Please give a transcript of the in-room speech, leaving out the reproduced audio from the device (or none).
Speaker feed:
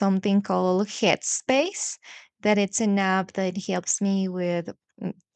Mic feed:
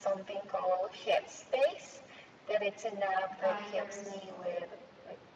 buyers uh,